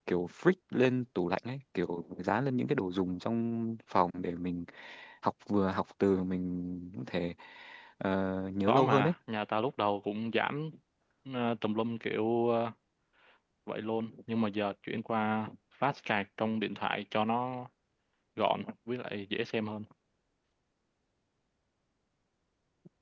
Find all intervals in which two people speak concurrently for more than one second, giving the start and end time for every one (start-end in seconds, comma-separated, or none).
none